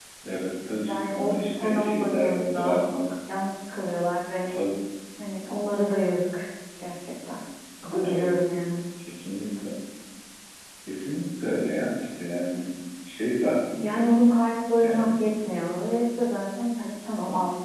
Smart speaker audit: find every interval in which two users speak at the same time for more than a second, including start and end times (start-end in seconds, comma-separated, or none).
0.9-2.8